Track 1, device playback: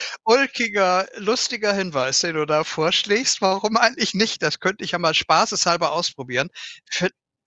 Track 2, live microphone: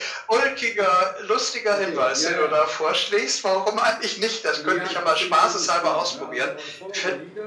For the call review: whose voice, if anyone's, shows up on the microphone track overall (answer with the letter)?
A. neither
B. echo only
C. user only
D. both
D